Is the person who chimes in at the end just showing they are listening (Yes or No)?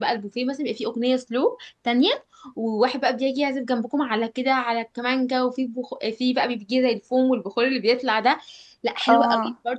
Yes